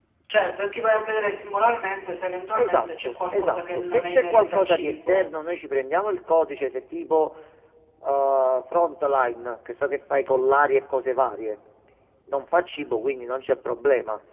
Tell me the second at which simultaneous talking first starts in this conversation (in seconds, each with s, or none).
2.5 s